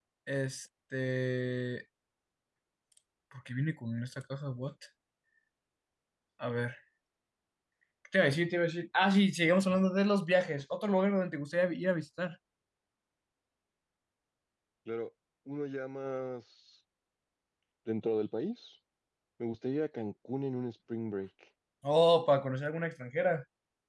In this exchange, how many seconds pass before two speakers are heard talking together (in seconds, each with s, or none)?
none